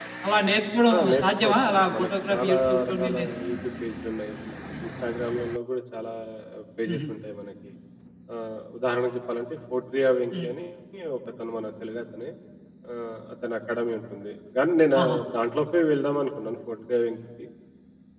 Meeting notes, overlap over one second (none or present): present